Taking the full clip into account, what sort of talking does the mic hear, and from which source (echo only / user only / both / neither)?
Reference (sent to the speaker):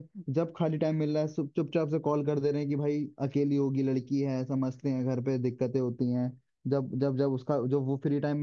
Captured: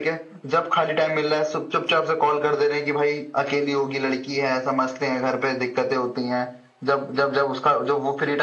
echo only